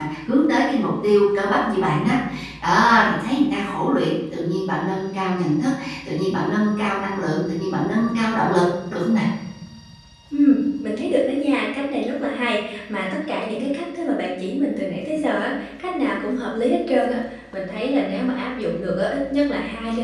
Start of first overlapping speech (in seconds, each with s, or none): none